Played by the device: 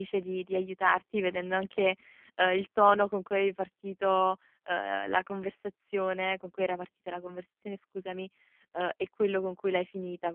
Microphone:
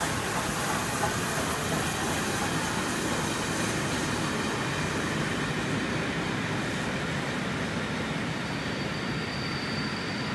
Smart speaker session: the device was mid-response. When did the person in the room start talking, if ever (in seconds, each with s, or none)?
none